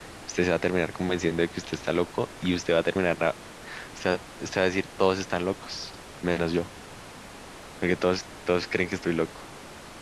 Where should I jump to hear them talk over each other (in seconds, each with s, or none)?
none